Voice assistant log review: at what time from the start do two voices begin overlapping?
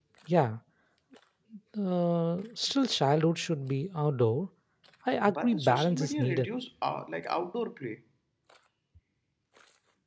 5.2 s

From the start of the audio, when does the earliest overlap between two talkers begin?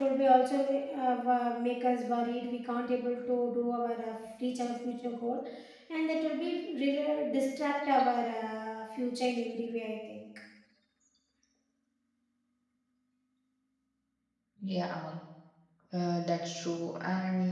none

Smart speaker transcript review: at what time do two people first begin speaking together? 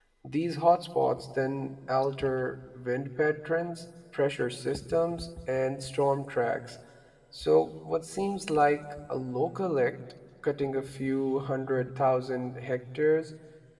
none

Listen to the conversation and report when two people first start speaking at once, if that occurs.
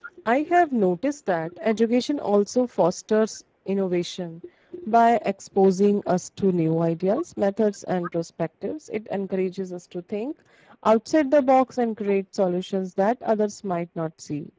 none

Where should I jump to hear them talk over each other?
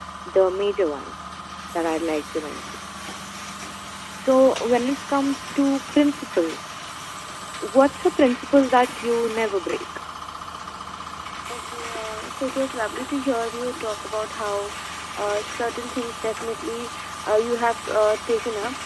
none

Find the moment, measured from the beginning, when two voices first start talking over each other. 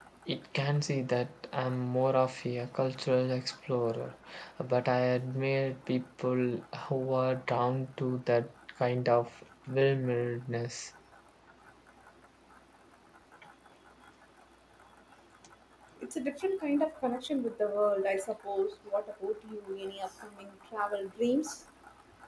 none

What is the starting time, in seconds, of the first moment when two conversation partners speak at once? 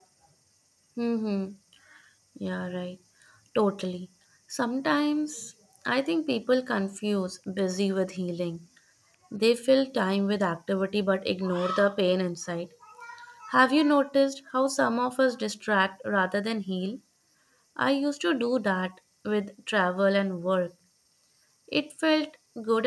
none

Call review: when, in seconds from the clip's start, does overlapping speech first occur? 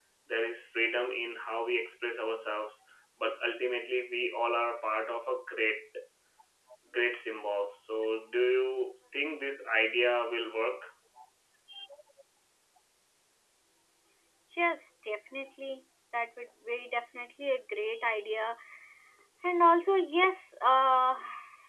none

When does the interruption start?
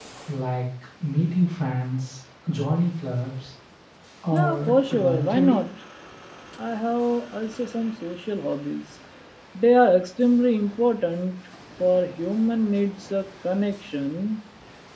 4.3 s

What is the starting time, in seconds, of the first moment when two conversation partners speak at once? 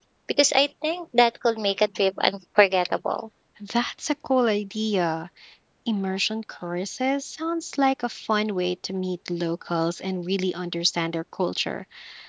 none

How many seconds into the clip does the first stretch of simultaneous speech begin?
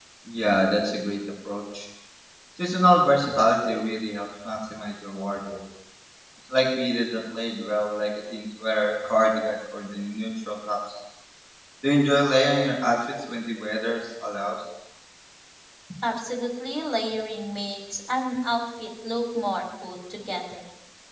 none

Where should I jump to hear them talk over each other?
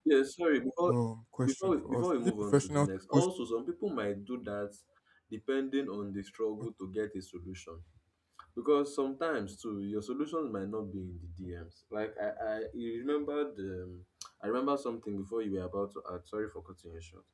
1.4 s

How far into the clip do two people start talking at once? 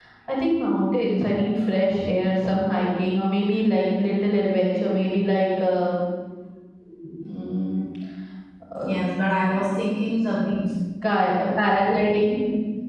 none

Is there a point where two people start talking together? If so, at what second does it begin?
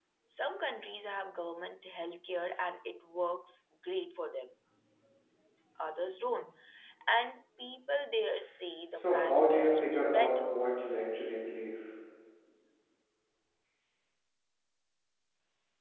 8.9 s

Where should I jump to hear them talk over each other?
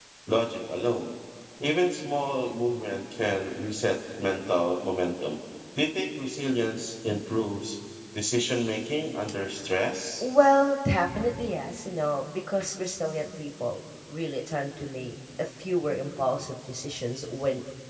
none

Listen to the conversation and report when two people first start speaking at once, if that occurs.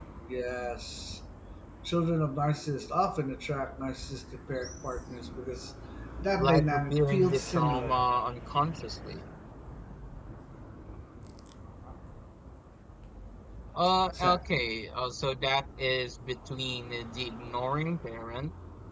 6.4 s

